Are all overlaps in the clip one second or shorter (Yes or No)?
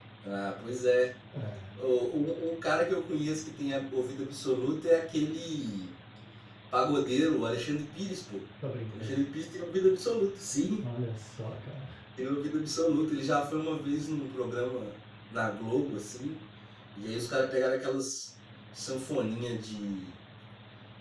Yes